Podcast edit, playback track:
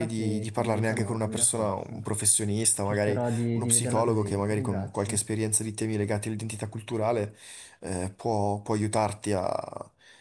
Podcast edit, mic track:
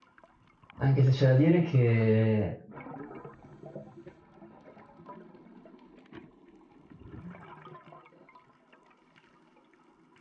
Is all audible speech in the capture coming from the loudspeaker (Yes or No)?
No